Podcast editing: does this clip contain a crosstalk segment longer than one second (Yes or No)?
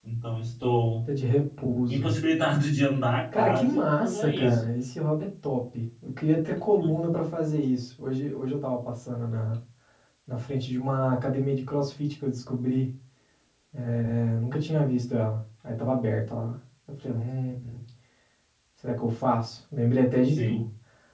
Yes